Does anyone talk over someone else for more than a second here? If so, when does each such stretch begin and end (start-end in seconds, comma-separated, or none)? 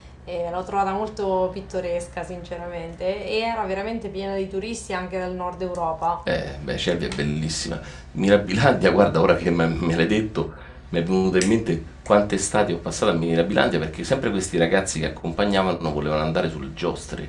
none